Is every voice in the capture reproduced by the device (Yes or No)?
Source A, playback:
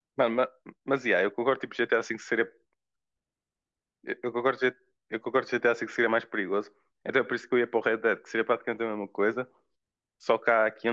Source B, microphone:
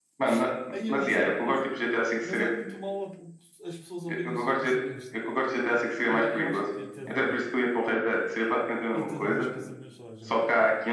No